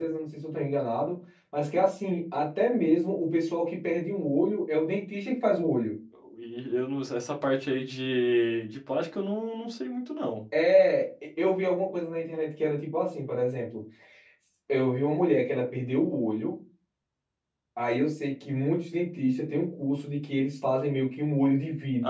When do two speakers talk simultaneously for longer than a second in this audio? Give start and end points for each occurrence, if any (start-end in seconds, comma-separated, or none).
none